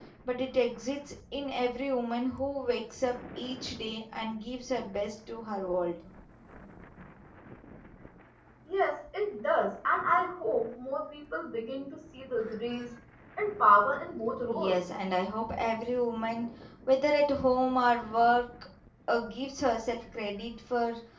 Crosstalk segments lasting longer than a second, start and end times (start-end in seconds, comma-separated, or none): none